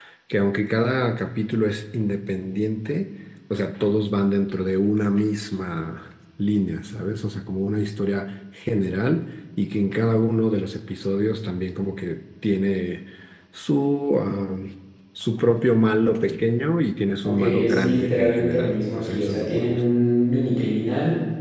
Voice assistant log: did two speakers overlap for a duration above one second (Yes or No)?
Yes